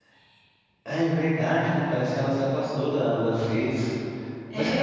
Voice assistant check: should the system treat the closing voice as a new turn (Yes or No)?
Yes